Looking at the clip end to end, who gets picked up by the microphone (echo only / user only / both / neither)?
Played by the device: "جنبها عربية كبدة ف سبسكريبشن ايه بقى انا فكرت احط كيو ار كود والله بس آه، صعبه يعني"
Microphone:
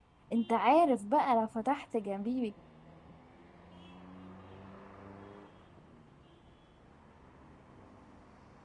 user only